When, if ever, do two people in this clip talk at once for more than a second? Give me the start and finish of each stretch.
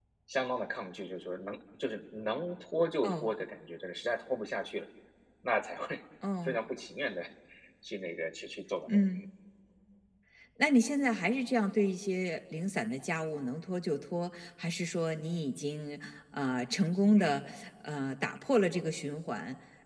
none

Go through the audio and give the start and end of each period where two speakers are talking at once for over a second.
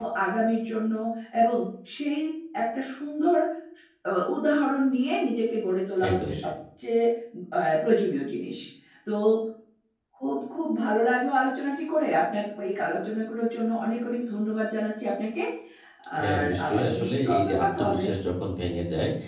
16.2-18.0

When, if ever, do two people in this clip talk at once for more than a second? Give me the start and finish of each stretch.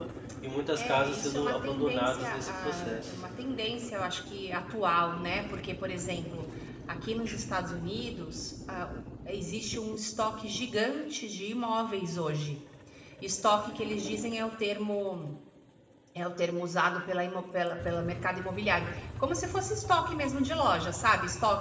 0.8-3.2

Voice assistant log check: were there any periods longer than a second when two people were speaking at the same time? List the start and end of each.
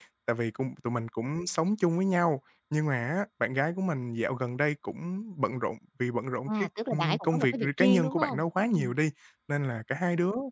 6.5-8.9

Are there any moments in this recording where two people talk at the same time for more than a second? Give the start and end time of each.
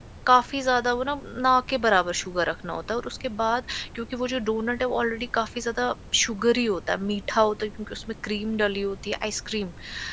none

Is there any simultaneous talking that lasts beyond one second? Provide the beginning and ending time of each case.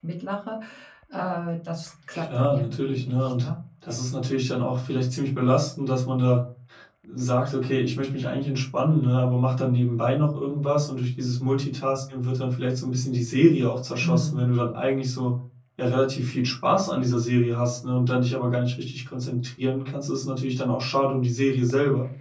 2.1-3.5

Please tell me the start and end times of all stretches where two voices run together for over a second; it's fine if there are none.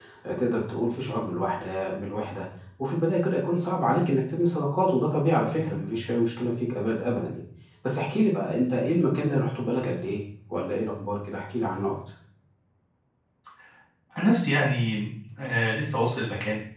none

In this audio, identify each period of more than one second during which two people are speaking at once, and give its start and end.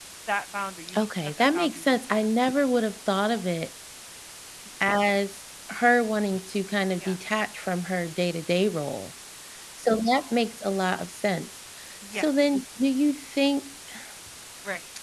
1.0-2.2

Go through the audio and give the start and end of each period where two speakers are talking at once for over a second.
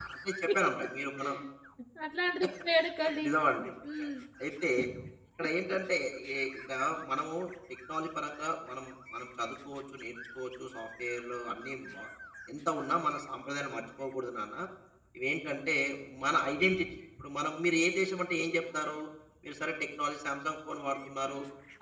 none

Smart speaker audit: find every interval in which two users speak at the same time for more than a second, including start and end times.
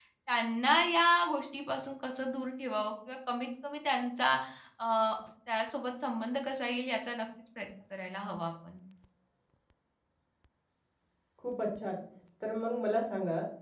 none

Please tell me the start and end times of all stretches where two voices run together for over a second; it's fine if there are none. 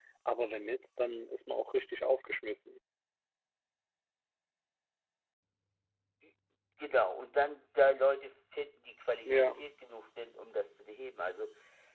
none

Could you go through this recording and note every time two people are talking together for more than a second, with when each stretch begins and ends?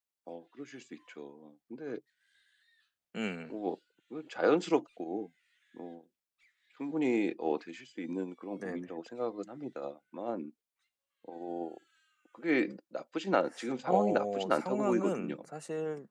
13.9-15.4

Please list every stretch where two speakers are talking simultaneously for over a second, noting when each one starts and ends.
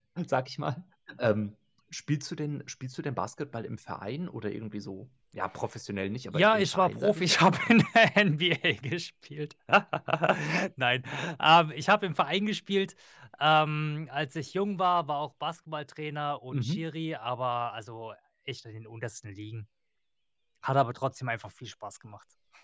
6.3-7.8

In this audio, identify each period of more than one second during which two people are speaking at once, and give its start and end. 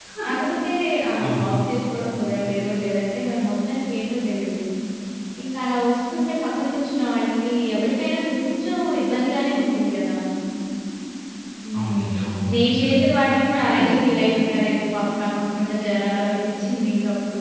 11.8-13.0

